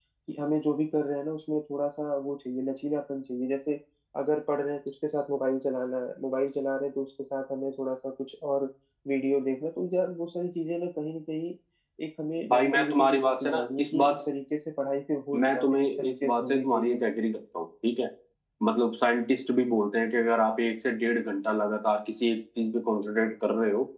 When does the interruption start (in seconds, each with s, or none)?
12.5 s